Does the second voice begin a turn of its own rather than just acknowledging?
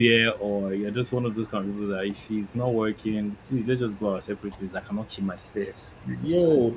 Yes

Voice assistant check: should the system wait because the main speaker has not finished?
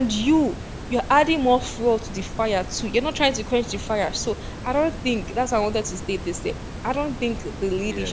Yes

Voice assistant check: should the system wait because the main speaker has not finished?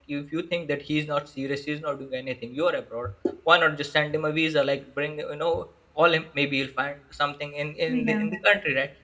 Yes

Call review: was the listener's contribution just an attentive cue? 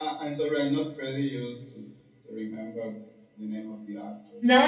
No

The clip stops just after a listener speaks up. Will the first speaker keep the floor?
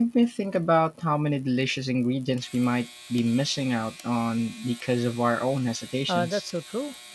No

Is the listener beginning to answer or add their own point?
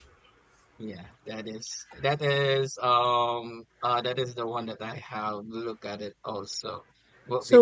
No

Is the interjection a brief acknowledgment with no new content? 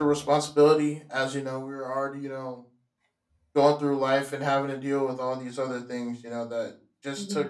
Yes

